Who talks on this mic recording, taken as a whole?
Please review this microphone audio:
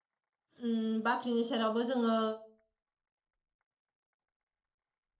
user only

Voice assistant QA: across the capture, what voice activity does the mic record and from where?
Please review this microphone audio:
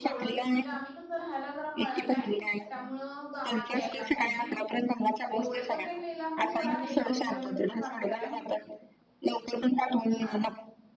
both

